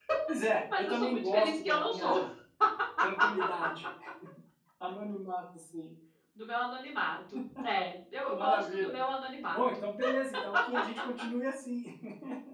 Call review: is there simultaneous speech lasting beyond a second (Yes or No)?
Yes